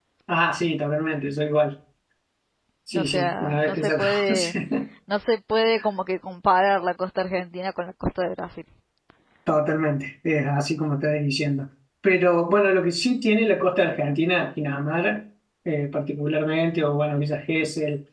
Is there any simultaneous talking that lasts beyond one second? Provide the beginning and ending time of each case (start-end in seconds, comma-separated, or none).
3.0-4.5